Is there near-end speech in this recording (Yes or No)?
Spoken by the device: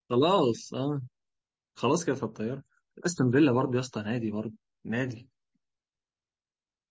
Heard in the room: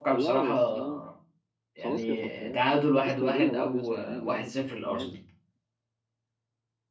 Yes